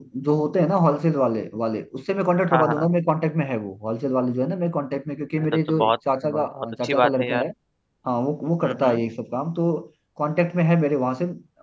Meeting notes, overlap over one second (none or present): present